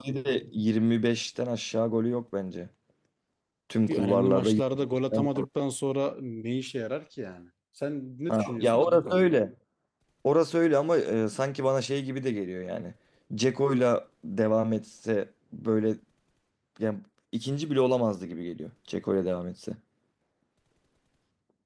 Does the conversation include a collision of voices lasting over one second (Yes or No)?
Yes